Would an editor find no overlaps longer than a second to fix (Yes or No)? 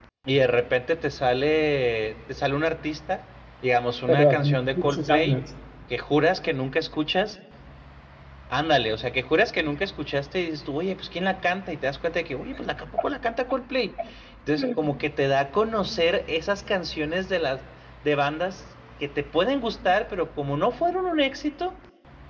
No